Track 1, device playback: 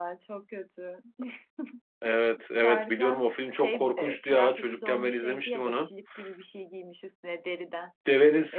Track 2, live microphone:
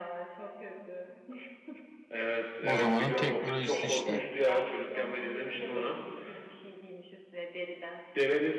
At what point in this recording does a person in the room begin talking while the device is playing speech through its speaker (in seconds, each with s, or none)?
2.6 s